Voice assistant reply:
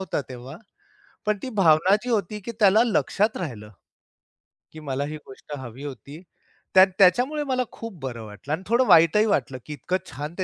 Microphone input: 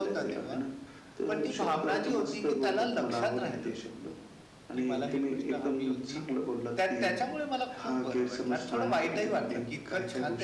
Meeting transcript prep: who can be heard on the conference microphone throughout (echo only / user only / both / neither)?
both